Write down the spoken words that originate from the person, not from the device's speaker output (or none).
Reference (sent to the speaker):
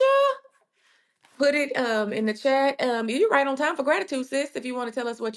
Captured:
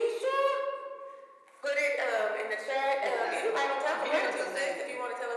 because he was amazing.